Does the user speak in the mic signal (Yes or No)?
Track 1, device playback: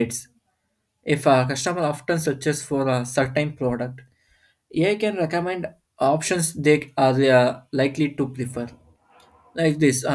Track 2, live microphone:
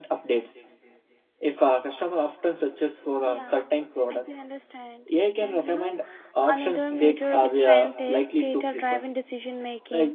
Yes